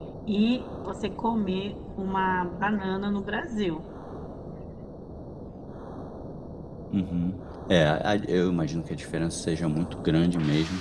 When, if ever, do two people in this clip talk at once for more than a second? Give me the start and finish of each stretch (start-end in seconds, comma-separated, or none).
none